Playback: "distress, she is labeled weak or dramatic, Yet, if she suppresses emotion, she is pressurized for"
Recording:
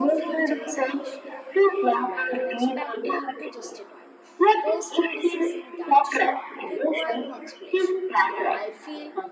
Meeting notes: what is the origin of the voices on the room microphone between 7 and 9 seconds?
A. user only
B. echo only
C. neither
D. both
D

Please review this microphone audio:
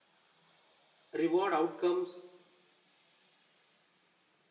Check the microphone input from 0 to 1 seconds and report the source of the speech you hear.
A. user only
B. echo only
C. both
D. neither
D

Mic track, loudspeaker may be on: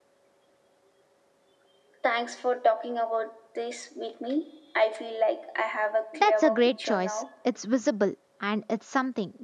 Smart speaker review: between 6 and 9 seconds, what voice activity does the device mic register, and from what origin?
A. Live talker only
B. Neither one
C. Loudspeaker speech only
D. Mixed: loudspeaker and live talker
D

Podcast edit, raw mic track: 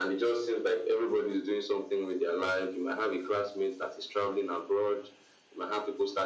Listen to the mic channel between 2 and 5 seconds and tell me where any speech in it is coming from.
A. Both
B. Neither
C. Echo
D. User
C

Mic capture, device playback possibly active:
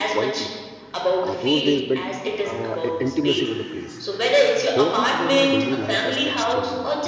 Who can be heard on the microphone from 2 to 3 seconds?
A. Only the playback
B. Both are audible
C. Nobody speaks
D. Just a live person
B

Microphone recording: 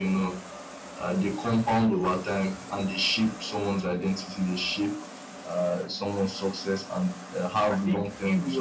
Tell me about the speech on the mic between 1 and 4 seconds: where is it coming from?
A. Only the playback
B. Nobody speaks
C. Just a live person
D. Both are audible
A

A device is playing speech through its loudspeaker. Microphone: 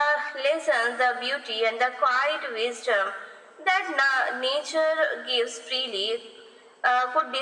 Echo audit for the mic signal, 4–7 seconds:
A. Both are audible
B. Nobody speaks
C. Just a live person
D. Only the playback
D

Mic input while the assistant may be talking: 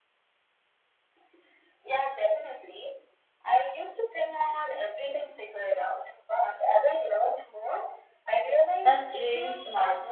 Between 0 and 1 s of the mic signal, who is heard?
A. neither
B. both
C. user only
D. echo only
A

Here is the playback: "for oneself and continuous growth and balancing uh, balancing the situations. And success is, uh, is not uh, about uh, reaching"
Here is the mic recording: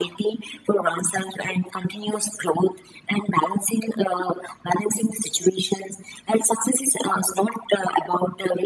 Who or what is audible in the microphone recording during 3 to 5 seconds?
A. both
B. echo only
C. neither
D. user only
B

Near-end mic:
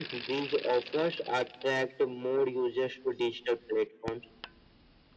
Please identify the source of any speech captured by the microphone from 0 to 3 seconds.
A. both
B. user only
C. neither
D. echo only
D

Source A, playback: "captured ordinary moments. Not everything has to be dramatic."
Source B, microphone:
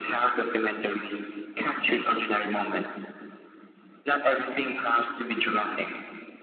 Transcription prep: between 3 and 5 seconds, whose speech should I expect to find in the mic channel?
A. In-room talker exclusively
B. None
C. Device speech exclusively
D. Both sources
C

